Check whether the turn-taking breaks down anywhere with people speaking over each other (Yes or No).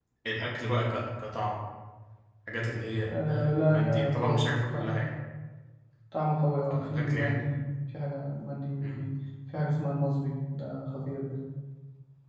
Yes